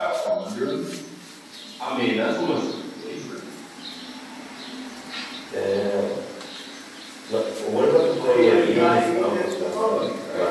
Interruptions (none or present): present